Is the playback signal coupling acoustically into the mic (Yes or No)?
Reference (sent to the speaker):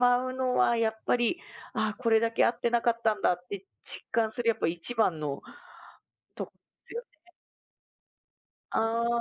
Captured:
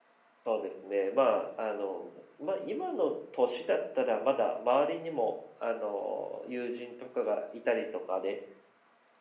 No